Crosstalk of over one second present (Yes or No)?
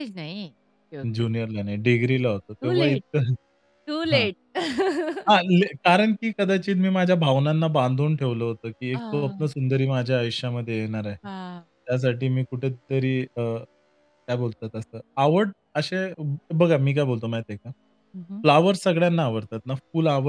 No